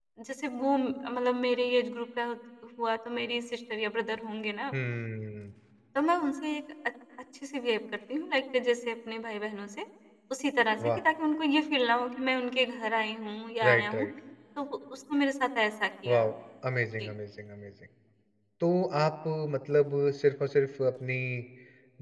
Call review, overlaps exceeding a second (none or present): none